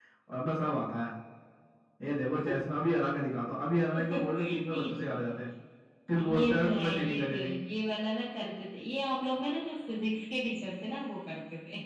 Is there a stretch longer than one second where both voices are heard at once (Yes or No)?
Yes